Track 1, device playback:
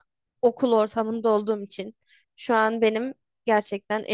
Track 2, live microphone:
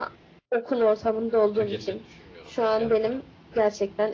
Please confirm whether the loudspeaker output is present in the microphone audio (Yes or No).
Yes